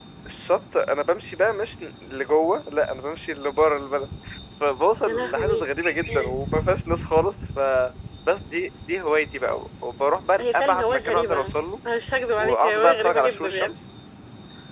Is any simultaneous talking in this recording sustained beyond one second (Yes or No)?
Yes